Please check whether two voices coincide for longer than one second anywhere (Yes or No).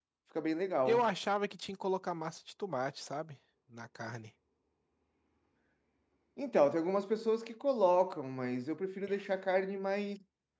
No